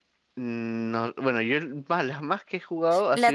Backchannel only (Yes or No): No